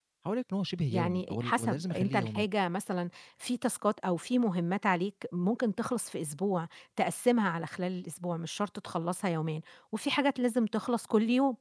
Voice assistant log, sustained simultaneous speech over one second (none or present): present